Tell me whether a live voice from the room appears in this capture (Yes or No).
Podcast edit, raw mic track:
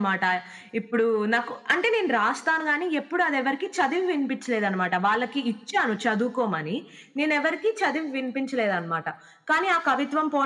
No